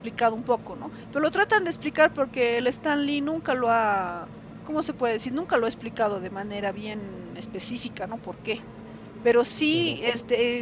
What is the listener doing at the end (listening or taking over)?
listening